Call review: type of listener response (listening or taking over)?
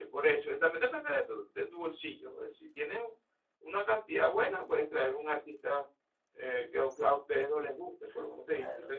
taking over